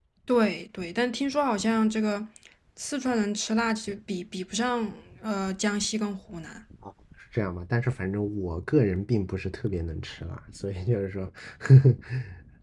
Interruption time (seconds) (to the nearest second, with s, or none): none